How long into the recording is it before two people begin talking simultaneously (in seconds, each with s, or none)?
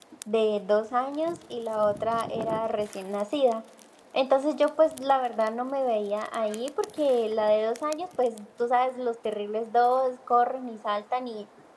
none